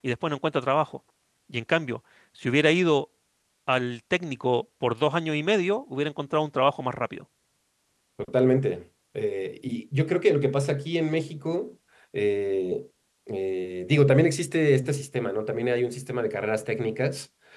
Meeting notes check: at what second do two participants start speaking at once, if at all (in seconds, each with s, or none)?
none